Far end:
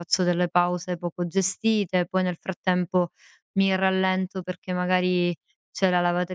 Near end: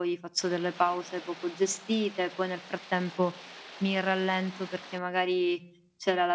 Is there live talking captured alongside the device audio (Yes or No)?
No